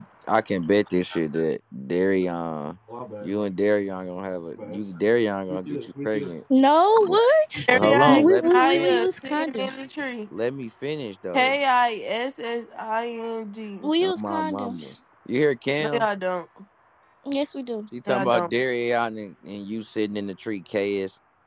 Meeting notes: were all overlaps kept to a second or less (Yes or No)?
No